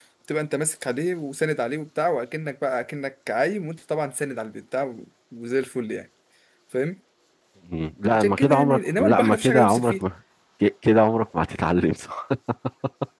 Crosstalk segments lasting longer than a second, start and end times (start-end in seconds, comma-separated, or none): 8.2-10.0